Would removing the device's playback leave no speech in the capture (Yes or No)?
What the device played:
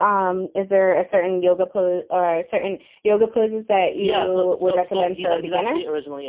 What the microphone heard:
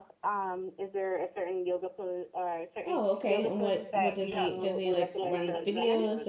No